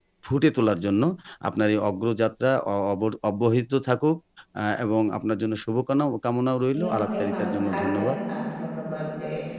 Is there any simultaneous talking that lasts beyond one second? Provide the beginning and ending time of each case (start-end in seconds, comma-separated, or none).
6.7-8.2